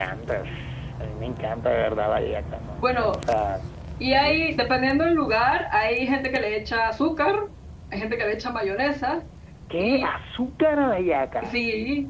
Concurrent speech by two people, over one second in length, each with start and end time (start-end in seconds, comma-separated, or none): none